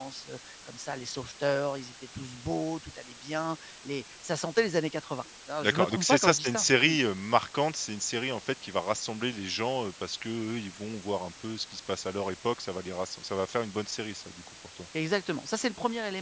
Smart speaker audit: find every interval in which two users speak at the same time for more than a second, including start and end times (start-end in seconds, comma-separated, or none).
5.6-6.9